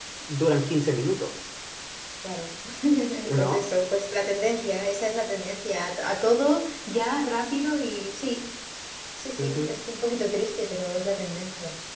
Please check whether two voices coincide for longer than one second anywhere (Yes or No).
No